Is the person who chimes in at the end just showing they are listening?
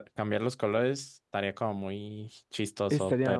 No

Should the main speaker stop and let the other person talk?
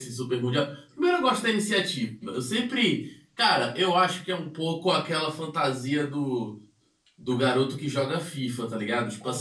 No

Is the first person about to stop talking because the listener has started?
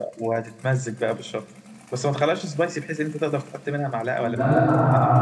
Yes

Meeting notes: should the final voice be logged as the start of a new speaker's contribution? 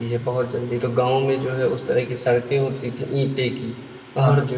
No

